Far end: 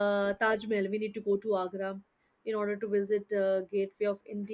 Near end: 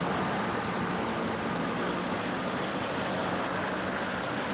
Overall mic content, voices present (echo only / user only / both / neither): neither